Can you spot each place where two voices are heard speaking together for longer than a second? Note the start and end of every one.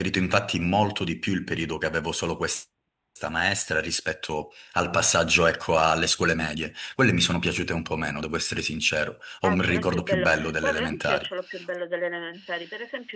9.4-11.3

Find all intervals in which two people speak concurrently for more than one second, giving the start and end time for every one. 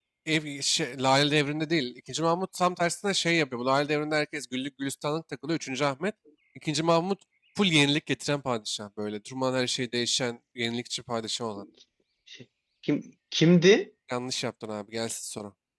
none

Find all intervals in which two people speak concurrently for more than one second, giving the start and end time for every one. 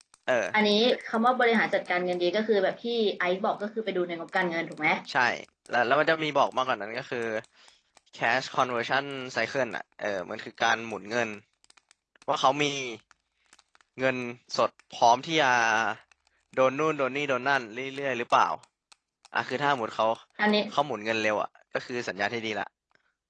none

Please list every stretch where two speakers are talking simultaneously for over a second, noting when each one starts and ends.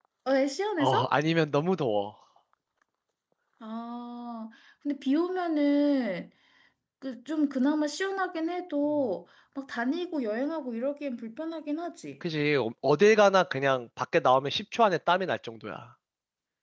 none

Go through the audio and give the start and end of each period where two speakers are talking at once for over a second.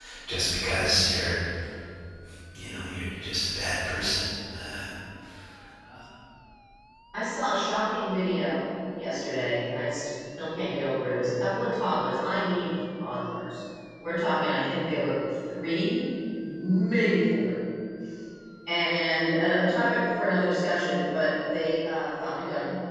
none

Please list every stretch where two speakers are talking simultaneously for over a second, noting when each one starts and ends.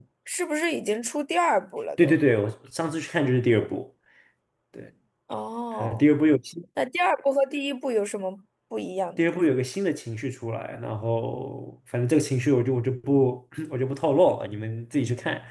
none

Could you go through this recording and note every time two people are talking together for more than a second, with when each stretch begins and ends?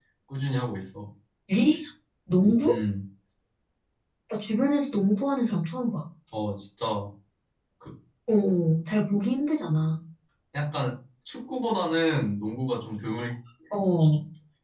none

